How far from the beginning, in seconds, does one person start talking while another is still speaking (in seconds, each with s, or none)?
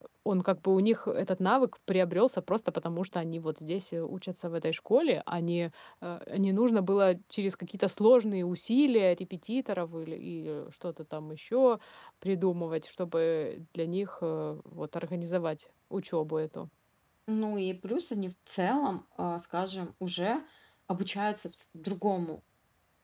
none